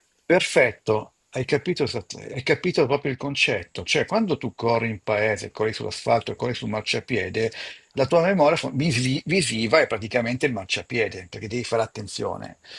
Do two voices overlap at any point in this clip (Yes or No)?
No